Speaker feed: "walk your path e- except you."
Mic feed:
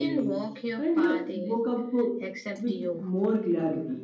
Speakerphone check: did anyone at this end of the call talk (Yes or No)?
Yes